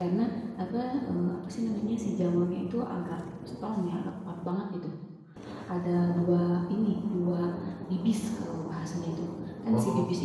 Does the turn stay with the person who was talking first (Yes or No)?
Yes